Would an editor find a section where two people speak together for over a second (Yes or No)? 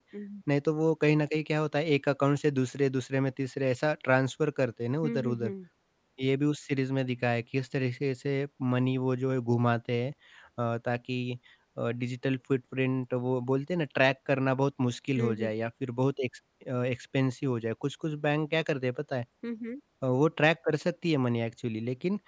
No